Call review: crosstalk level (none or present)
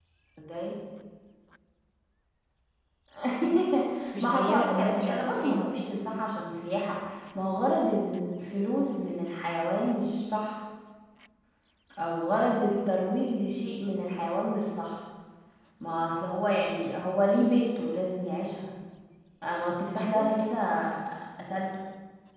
present